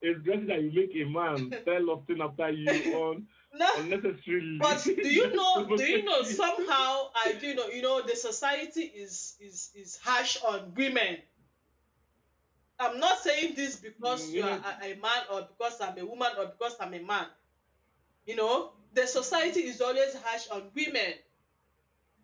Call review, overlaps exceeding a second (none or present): present